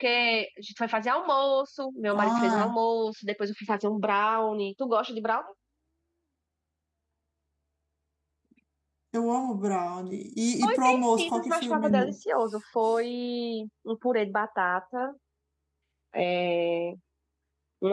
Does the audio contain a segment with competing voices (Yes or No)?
Yes